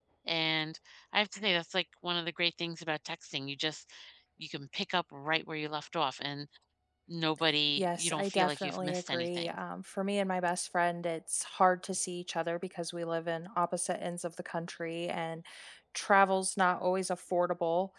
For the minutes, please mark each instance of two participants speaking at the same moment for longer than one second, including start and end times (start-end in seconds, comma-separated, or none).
7.8-9.5